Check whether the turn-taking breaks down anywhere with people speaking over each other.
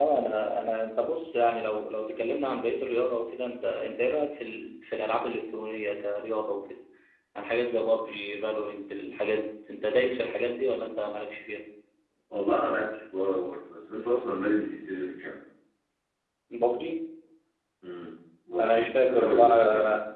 Yes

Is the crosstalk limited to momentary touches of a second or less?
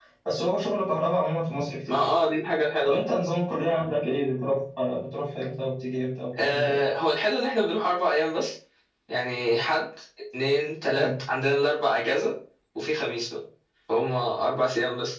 Yes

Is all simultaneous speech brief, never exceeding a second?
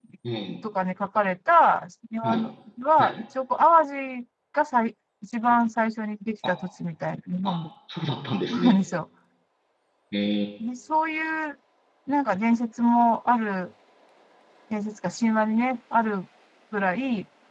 Yes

